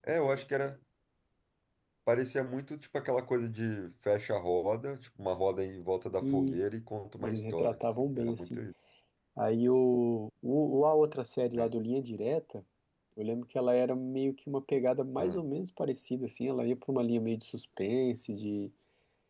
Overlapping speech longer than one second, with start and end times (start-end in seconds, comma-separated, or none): 7.2-8.6